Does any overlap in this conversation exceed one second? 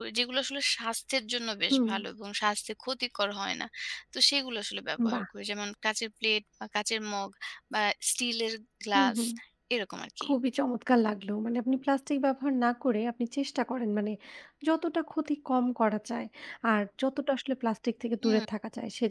No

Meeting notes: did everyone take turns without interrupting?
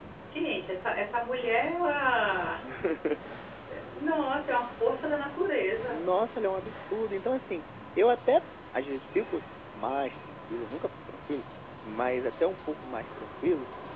Yes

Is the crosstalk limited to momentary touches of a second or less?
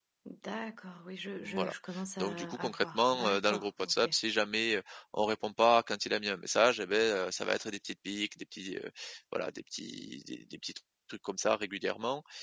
No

